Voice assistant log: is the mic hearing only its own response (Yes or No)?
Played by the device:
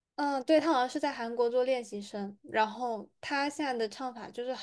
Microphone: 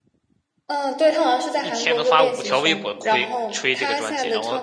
No